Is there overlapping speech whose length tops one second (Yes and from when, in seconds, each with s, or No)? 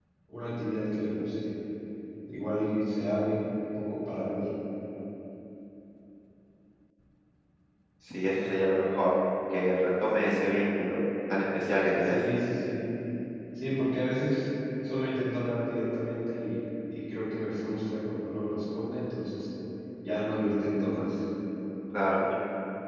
No